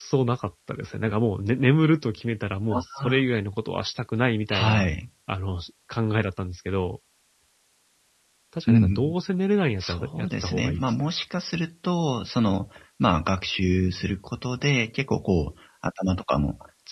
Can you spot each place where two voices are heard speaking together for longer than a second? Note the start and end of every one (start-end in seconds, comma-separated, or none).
9.8-11.1